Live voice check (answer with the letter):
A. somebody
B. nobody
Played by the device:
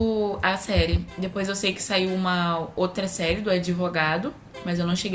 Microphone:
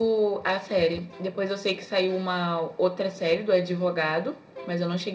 B